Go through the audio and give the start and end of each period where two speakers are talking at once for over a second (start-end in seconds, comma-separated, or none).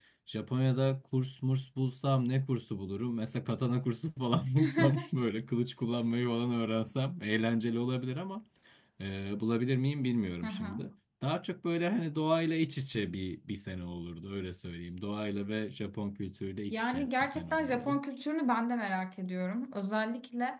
16.7-18.0